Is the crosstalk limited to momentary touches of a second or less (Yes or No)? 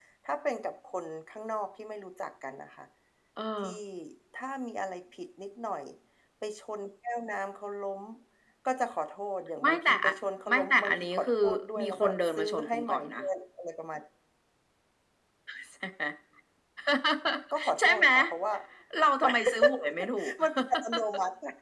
No